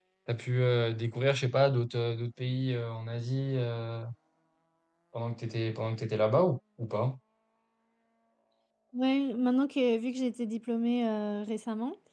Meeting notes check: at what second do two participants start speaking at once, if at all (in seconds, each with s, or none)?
none